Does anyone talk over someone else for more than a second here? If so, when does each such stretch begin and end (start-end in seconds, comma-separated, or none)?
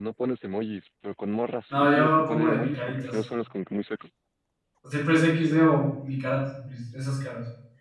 1.7-3.2